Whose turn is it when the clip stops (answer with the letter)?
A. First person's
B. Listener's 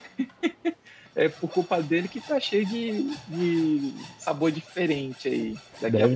A